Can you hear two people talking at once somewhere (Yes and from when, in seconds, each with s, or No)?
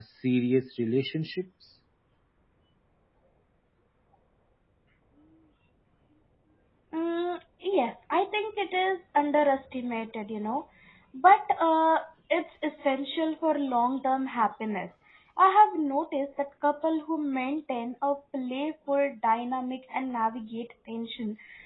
No